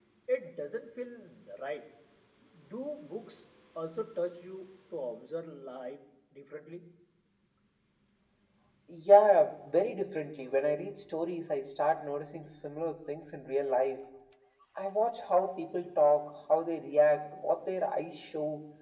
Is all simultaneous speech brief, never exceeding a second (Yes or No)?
Yes